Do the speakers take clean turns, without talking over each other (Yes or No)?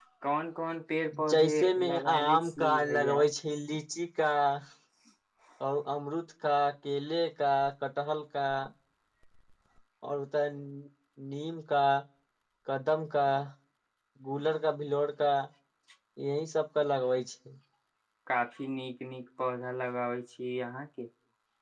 No